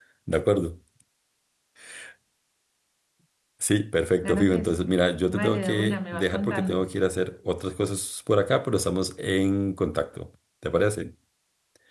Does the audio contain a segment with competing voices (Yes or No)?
Yes